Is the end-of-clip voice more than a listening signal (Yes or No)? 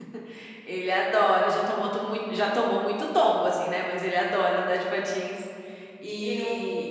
No